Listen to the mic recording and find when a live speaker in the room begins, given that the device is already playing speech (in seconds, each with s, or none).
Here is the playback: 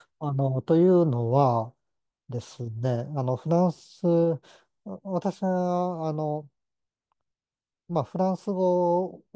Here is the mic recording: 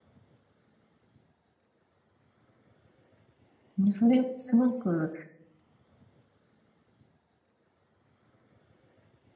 3.8 s